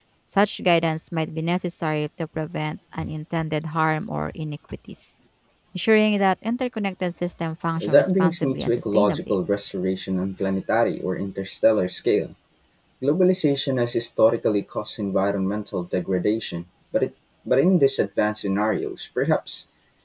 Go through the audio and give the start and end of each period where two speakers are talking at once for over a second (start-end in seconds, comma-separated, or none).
7.8-9.3